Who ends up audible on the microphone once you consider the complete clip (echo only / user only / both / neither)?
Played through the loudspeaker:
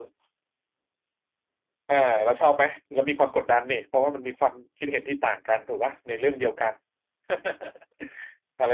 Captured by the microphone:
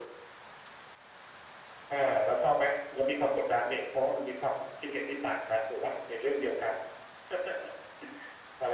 echo only